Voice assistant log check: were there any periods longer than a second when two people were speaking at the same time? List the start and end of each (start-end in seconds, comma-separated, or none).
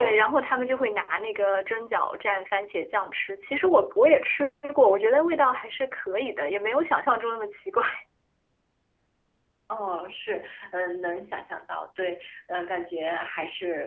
none